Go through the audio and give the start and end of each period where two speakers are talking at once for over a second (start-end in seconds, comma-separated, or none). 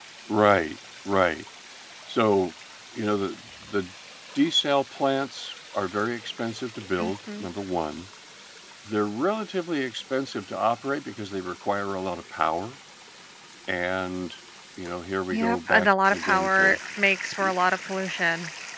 15.3-16.8